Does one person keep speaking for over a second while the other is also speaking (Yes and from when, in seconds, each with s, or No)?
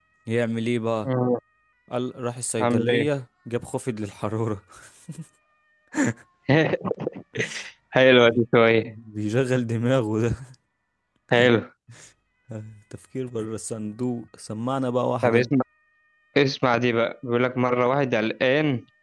No